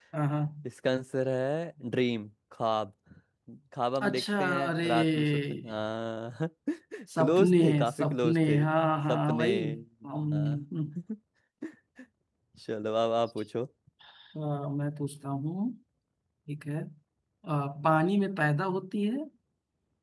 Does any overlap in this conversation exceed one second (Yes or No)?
Yes